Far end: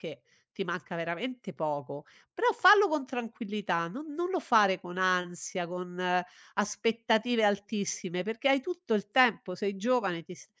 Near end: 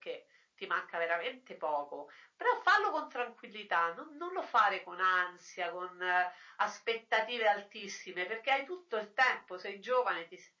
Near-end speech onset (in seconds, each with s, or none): none